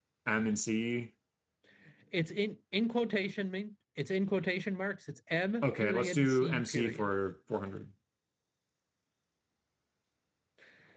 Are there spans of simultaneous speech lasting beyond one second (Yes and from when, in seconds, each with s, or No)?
Yes, from 5.6 s